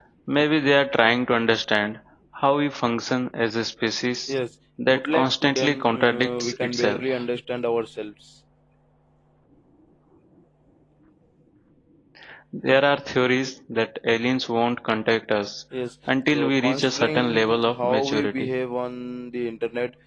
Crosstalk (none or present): present